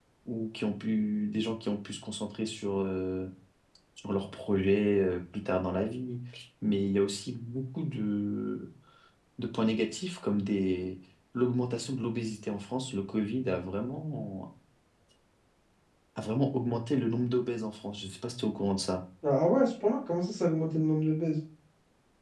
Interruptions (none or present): none